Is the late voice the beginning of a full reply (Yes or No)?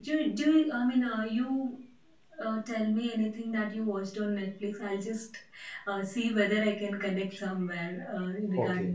Yes